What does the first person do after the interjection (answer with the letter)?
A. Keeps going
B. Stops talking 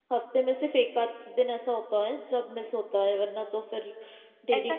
B